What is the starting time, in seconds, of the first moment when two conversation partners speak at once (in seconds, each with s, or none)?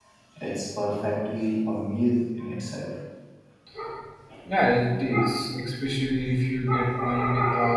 none